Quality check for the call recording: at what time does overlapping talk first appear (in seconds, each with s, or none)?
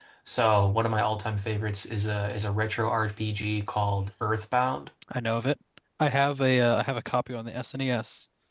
none